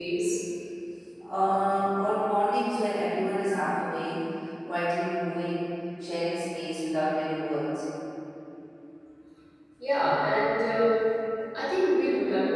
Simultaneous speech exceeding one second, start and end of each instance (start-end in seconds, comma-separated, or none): none